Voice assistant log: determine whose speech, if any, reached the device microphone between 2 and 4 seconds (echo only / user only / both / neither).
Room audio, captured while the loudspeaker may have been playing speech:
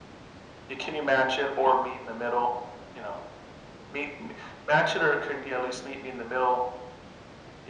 echo only